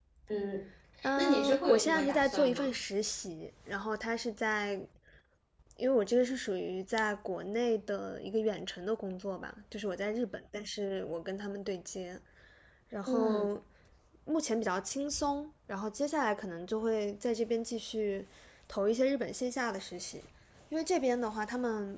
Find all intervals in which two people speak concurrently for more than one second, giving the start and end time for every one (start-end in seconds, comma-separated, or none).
1.2-2.7